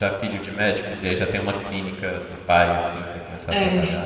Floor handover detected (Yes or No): Yes